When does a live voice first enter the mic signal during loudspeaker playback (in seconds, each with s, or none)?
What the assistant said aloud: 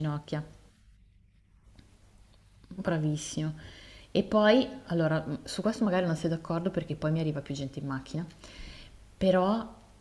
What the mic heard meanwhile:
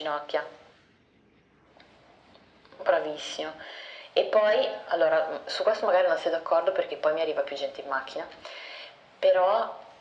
none